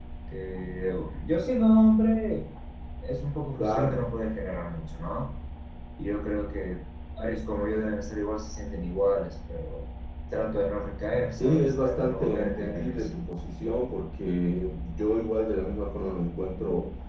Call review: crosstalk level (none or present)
present